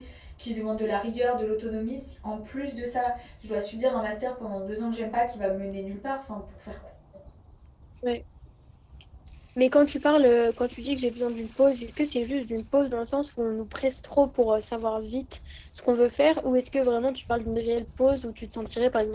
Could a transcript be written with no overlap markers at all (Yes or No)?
Yes